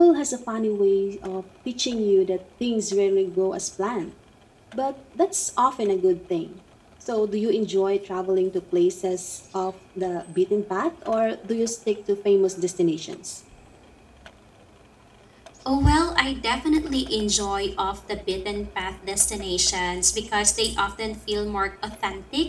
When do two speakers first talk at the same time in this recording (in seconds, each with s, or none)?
none